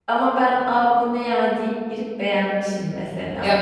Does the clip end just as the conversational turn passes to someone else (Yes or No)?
Yes